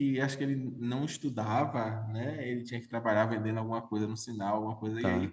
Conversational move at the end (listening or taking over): listening